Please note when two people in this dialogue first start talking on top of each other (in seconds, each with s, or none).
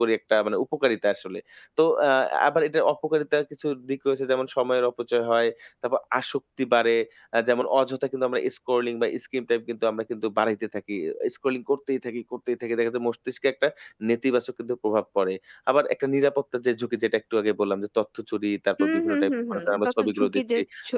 18.8 s